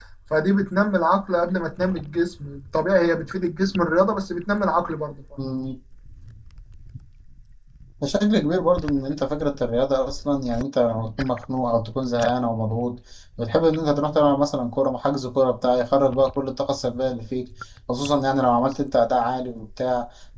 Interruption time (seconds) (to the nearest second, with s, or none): none